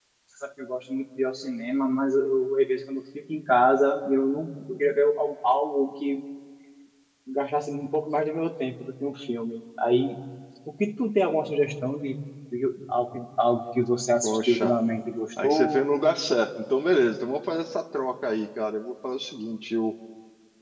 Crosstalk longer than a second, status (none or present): none